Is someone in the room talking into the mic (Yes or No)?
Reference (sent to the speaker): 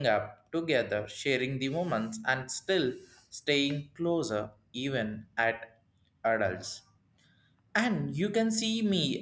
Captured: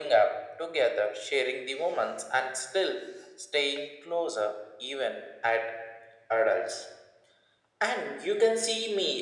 No